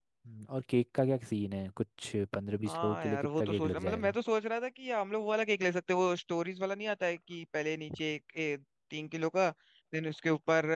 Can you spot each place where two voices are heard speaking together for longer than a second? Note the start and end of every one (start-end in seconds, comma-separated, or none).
2.7-4.2